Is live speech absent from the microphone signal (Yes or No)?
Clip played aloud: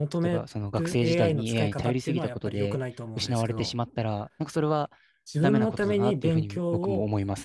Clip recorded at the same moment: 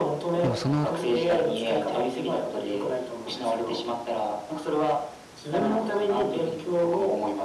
No